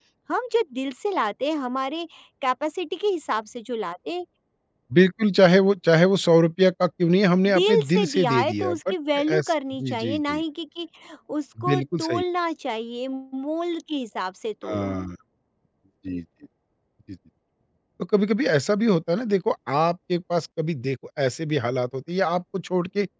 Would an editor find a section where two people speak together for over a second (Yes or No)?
Yes